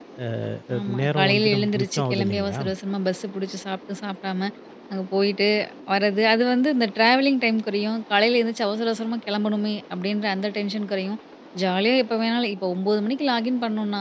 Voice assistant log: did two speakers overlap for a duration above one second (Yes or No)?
Yes